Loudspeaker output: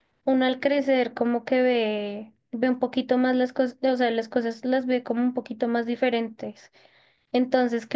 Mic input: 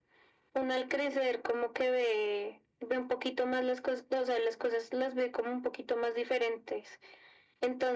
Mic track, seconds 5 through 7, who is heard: echo only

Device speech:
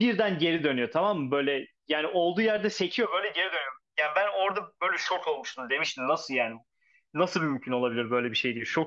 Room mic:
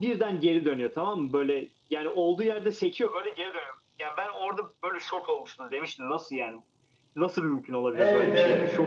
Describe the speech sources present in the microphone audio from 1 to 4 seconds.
echo only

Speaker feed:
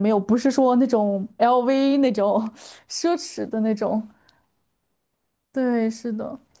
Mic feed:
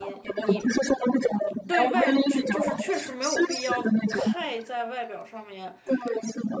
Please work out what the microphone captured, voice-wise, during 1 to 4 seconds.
both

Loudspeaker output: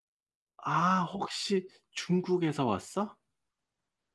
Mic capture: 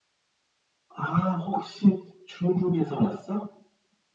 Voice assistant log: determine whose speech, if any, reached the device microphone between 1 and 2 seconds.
echo only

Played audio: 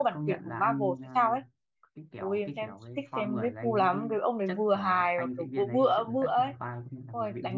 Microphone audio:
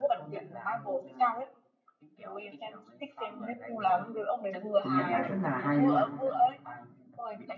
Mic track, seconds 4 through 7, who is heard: both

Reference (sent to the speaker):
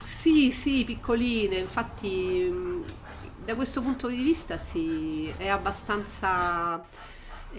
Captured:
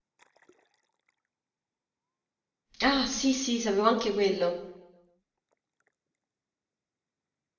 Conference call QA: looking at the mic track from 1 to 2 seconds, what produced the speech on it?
neither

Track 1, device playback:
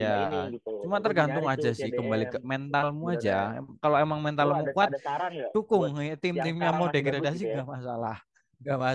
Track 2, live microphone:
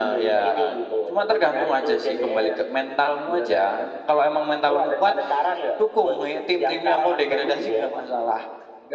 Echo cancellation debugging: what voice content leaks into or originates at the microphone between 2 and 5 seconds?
echo only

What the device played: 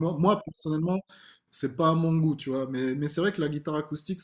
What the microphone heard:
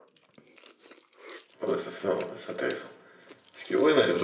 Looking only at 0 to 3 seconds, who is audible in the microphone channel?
user only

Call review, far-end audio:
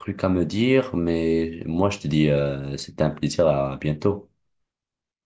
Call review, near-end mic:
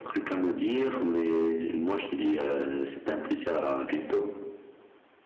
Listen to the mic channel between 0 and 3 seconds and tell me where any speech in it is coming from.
echo only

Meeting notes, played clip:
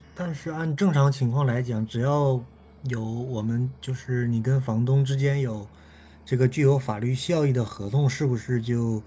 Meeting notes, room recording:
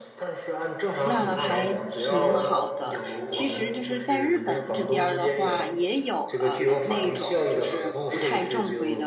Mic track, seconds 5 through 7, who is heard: both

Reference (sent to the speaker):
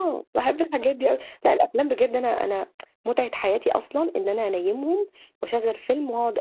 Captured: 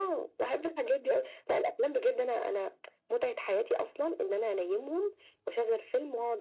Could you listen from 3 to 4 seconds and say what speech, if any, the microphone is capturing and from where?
echo only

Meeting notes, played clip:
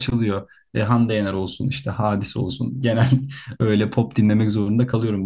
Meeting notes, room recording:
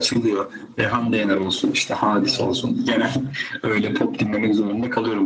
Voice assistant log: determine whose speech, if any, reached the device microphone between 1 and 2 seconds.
echo only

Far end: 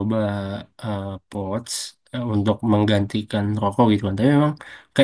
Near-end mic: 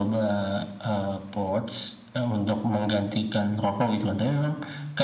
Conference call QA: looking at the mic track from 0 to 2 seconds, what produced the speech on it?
echo only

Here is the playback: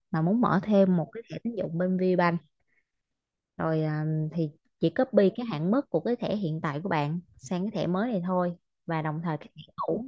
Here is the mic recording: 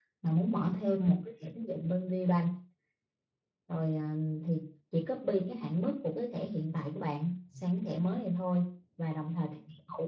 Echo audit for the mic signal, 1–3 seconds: echo only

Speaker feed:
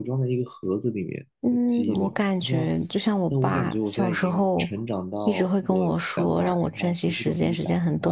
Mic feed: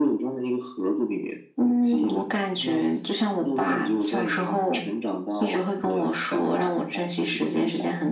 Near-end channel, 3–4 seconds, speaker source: echo only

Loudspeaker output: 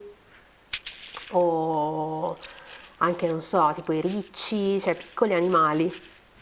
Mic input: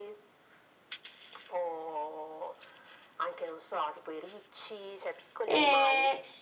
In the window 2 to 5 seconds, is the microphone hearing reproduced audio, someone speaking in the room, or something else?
echo only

